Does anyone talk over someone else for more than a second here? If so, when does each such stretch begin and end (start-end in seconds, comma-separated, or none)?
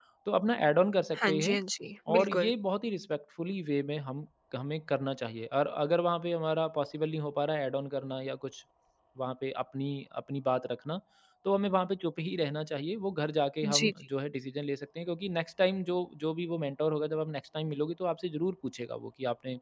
none